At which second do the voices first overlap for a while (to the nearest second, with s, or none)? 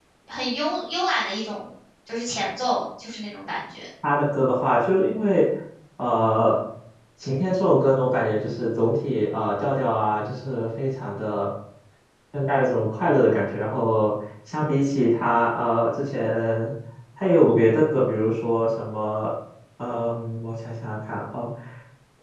none